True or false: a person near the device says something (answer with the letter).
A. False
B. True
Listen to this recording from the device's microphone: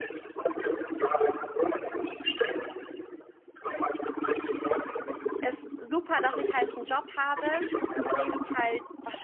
B